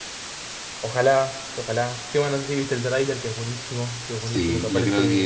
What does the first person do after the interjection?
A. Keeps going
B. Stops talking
B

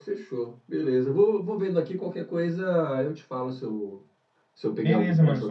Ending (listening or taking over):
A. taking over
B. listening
A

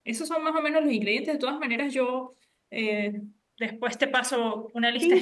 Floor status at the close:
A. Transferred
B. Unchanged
A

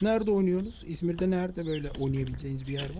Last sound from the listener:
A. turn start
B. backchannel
A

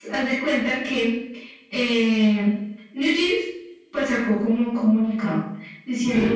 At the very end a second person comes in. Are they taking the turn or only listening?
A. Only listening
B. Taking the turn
A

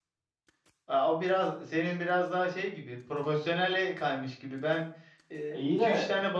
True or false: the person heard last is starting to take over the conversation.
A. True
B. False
B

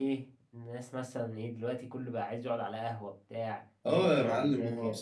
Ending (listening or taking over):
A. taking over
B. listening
A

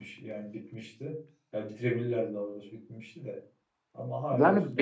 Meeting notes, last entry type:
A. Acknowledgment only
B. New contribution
B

